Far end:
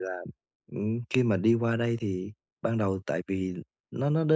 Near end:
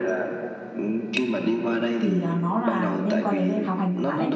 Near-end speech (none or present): present